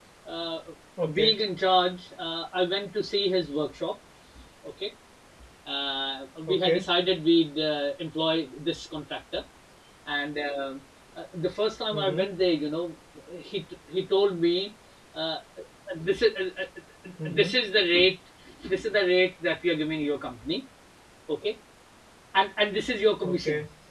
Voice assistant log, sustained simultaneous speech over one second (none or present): none